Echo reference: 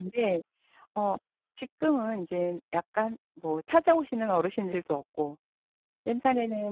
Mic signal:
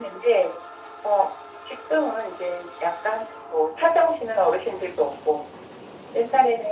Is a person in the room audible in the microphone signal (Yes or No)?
No